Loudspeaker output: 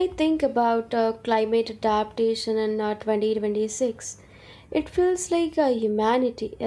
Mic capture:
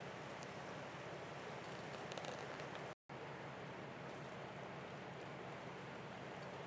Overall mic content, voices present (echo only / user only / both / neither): neither